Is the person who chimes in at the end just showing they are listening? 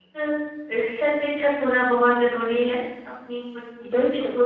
Yes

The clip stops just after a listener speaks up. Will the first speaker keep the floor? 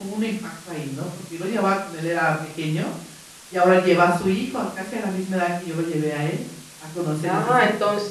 No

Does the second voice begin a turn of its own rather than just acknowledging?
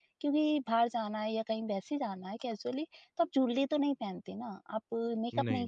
No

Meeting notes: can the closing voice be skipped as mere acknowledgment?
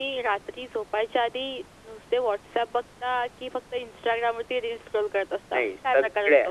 No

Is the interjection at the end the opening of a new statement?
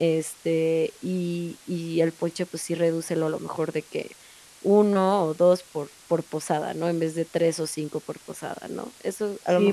Yes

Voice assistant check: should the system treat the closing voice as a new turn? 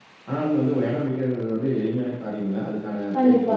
No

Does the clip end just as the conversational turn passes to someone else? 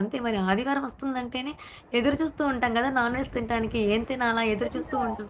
Yes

